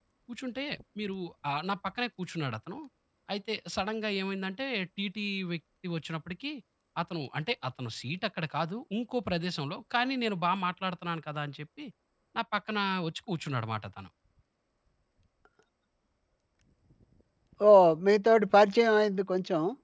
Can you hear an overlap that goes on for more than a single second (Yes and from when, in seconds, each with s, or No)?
No